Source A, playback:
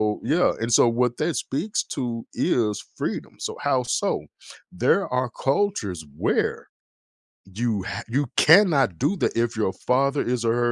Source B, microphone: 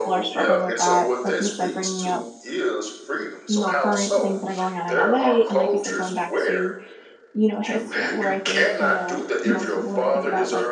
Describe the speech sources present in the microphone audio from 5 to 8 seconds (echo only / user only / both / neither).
both